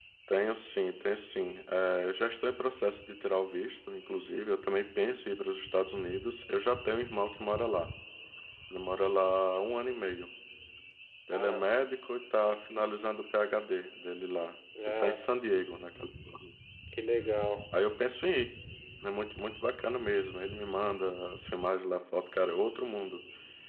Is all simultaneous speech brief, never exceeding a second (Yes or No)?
Yes